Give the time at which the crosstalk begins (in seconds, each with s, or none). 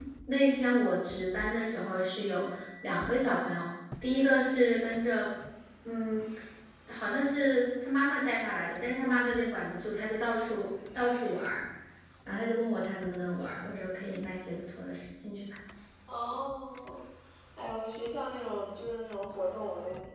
none